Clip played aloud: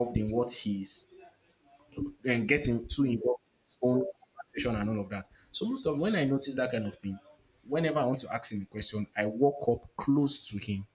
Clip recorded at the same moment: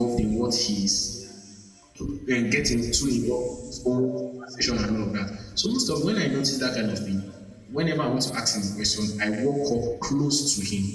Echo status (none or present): present